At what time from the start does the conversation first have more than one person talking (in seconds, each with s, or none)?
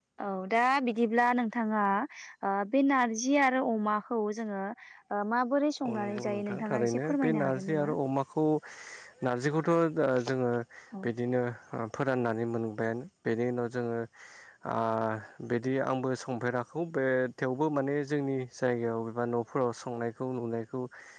5.9 s